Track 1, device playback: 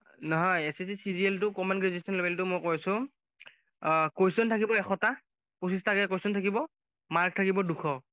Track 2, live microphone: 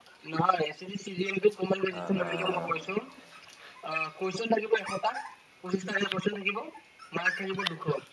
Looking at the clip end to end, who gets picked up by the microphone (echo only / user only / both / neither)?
both